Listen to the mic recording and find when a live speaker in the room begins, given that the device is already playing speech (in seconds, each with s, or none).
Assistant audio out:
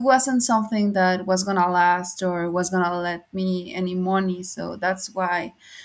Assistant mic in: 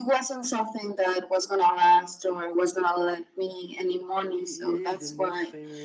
4.3 s